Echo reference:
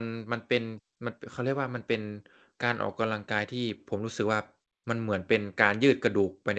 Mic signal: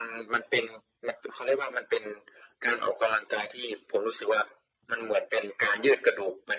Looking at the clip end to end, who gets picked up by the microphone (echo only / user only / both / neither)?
echo only